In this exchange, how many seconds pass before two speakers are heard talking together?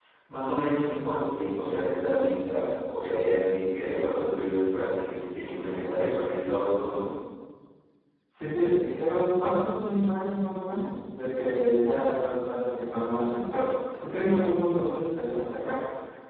none

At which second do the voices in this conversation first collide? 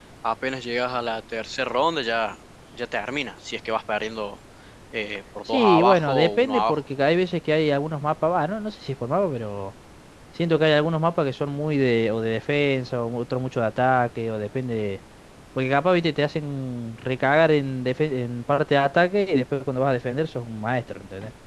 5.5 s

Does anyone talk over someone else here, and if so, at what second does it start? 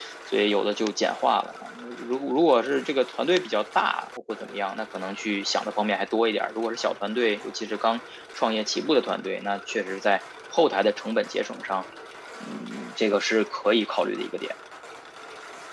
none

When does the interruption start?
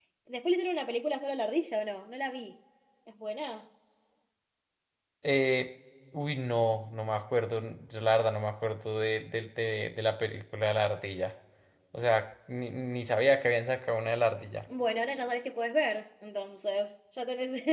none

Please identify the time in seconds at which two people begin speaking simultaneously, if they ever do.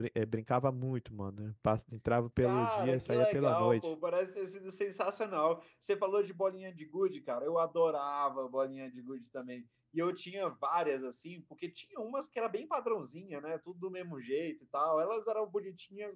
2.4 s

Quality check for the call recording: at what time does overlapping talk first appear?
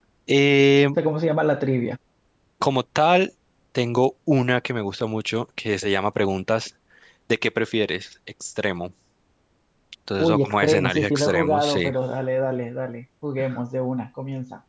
10.2 s

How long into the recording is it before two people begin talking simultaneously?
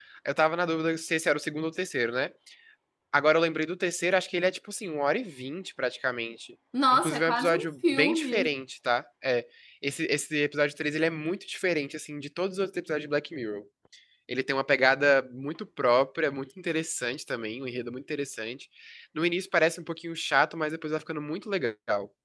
6.7 s

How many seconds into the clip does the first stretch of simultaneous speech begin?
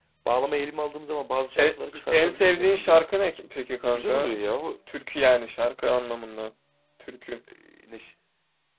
1.6 s

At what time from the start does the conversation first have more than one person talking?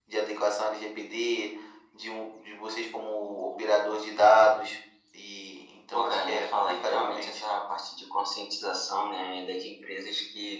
5.9 s

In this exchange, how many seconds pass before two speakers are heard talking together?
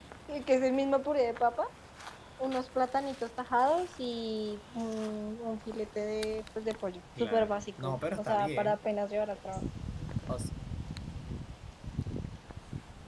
7.2 s

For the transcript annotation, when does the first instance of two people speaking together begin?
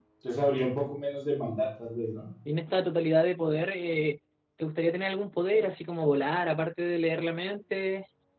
none

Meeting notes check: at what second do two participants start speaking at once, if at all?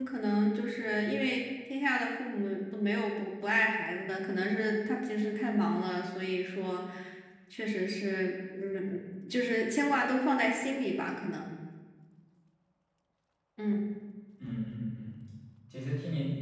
none

